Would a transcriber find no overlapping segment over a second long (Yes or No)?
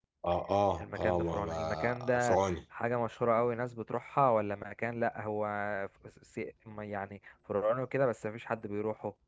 No